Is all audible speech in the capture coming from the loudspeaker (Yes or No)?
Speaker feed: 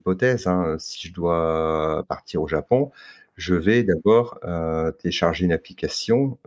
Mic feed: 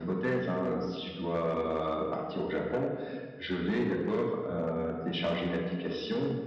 Yes